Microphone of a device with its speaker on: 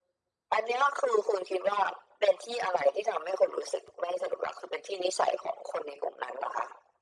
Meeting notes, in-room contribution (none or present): none